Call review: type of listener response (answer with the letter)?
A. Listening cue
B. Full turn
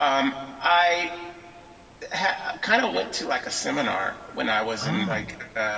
A